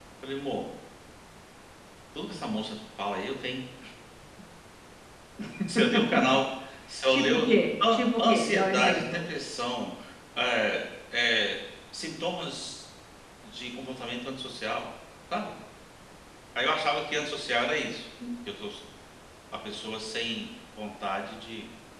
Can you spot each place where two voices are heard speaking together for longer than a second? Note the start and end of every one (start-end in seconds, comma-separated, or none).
7.9-9.2